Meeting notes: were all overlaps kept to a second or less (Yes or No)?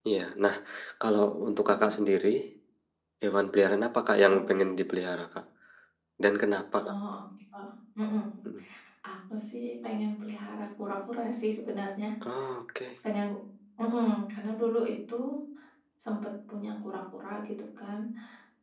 Yes